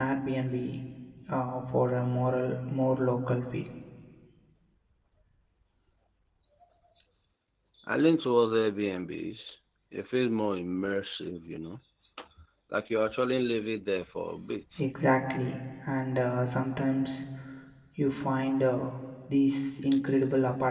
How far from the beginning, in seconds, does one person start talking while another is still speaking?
none

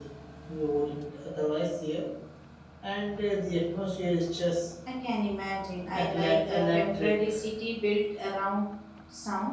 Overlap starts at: 5.9 s

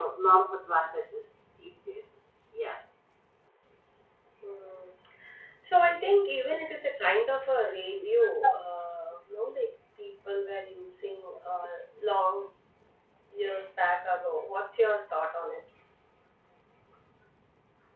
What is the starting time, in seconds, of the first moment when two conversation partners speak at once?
none

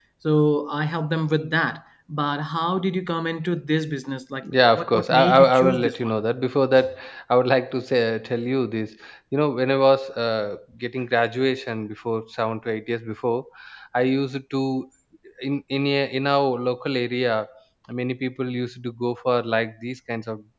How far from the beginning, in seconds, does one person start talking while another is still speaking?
4.4 s

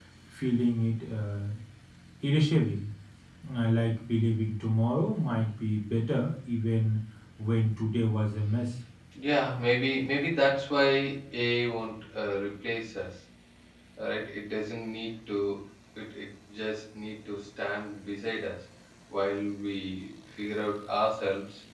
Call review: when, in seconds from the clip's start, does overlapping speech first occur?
none

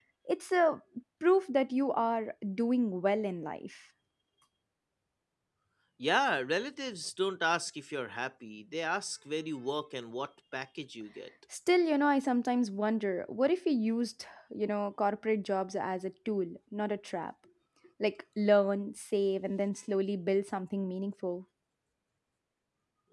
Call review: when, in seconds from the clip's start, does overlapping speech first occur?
none

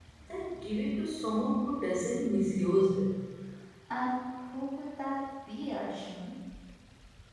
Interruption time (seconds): none

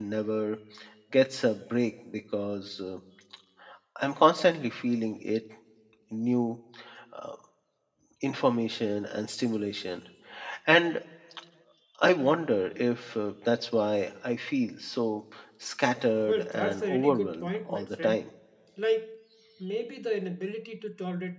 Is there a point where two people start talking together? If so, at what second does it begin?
16.3 s

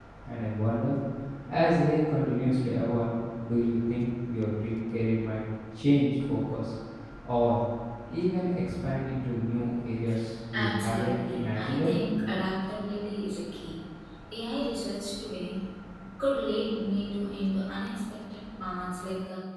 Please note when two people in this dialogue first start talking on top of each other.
10.5 s

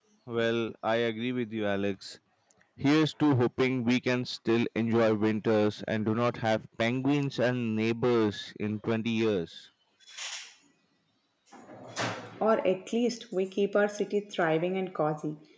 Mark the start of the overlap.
none

